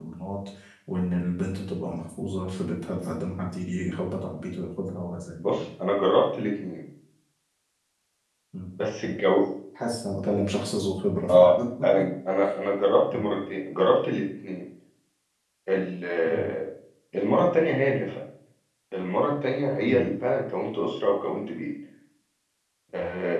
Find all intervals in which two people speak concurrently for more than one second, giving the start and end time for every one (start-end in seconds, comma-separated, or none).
none